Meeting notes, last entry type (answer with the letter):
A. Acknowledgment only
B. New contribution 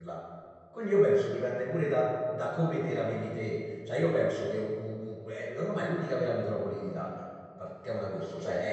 A